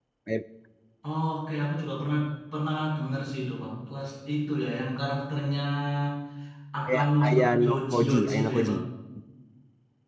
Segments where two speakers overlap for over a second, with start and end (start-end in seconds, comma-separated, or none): 6.9-8.7